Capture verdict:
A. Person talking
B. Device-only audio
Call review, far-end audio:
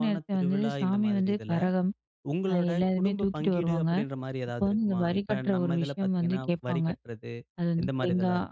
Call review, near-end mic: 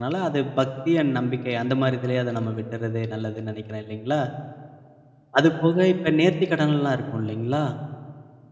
A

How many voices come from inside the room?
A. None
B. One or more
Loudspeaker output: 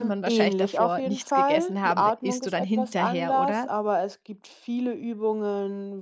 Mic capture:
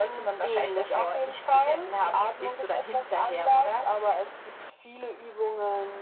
A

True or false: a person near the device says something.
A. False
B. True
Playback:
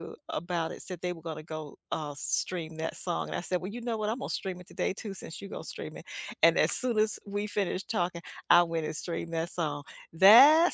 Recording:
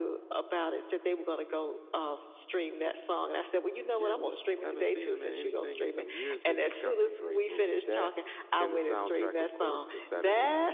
B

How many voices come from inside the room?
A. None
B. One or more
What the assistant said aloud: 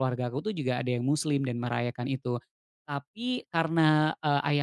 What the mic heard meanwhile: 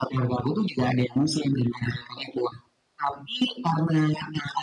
A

